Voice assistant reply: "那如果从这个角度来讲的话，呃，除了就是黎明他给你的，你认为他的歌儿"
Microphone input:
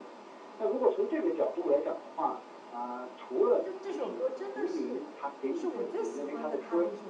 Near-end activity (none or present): present